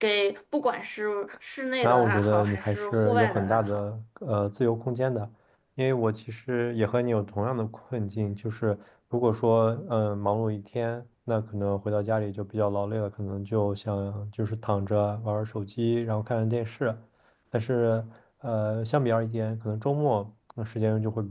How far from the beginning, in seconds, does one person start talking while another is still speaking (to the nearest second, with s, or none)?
2 s